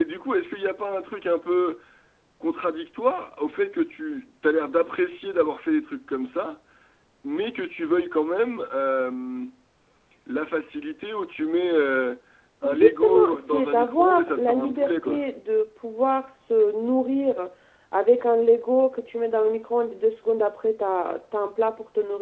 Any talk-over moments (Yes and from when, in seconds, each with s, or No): Yes, from 12.6 s